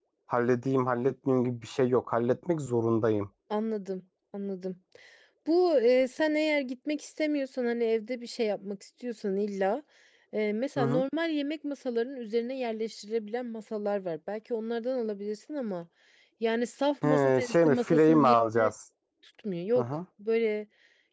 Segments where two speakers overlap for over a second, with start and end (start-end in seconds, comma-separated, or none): 17.0-18.7